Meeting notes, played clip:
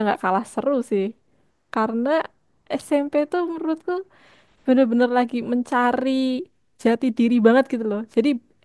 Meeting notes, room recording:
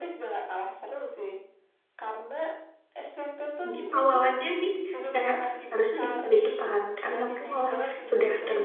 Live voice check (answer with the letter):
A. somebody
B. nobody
A